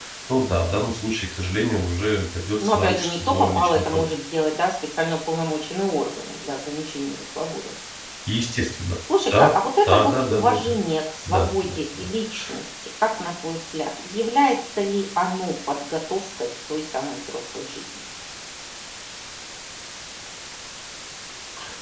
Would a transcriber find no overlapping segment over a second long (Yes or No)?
No